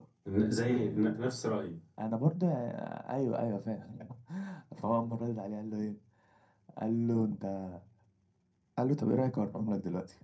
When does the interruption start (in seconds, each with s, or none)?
none